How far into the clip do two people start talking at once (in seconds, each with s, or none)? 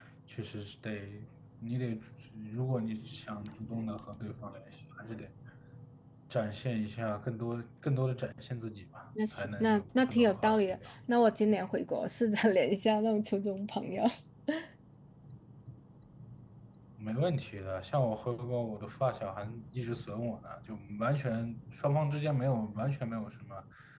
9.2 s